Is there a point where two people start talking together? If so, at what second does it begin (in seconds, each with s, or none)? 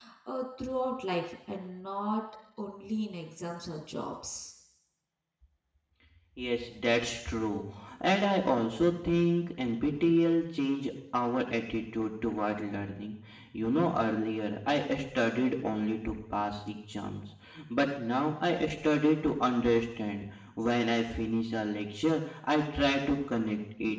none